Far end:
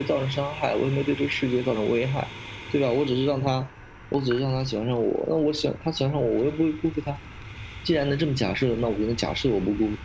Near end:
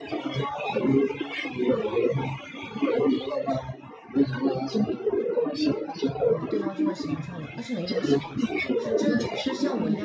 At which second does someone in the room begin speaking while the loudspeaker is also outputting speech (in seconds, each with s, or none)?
6.2 s